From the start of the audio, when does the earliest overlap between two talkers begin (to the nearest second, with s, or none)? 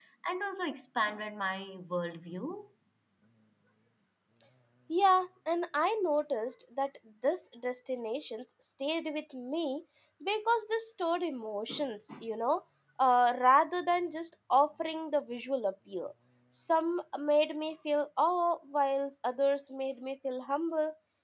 none